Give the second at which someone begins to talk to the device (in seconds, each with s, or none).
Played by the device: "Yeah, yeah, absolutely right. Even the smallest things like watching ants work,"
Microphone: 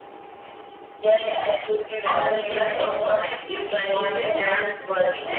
2.0 s